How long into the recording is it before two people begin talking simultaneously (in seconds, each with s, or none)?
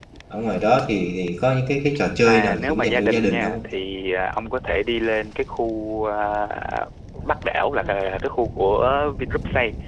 2.2 s